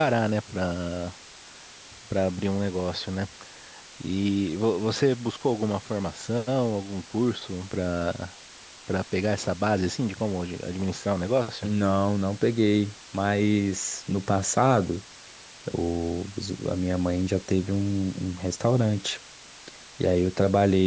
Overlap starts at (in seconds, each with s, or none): none